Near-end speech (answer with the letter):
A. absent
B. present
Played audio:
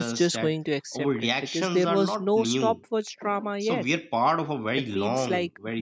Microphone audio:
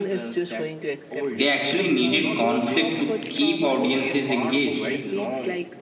B